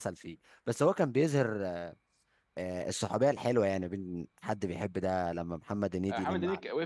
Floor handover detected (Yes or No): Yes